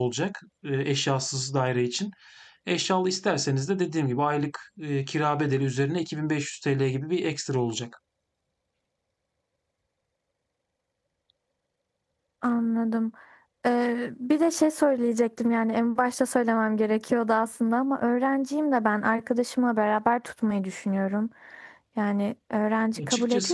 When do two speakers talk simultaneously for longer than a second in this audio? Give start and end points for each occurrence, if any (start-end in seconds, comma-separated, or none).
none